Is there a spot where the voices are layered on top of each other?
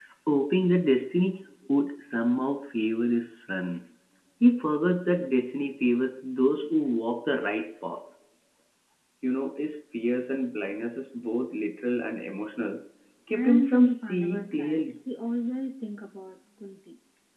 Yes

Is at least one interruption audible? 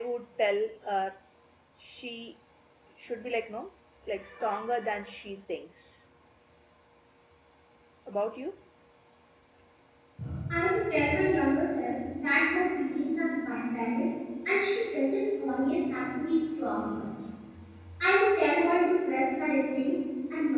No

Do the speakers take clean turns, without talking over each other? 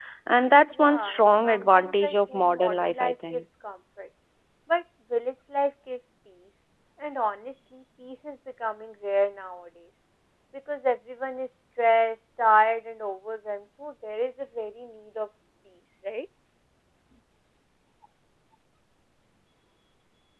No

